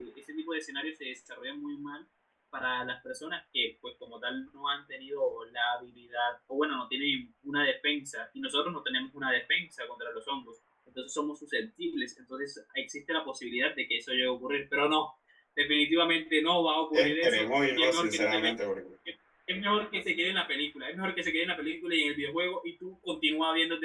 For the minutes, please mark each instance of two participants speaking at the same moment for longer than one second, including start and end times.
16.9-18.5

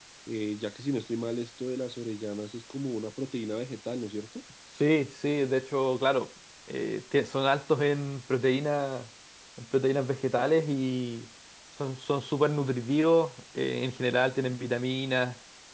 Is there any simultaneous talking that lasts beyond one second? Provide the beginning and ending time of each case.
none

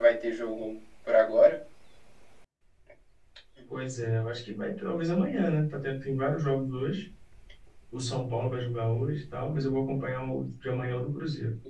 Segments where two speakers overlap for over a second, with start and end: none

